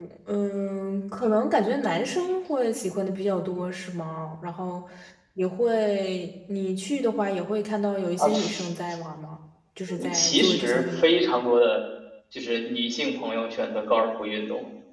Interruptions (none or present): present